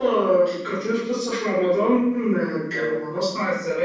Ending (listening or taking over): listening